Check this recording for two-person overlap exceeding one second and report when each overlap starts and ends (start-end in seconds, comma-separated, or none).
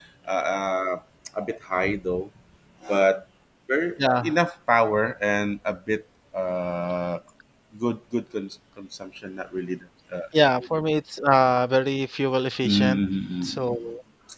none